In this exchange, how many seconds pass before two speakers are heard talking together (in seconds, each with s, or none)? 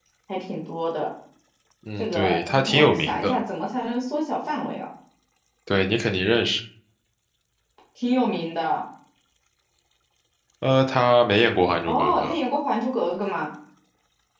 2.0 s